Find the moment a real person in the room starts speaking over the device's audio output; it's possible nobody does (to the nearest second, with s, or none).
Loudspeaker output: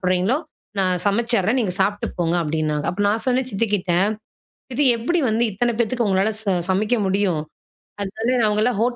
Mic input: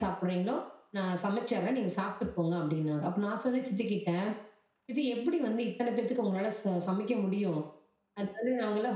none